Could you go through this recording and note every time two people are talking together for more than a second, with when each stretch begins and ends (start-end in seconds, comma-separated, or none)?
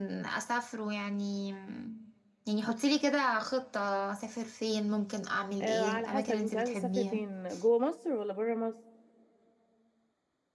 5.6-7.2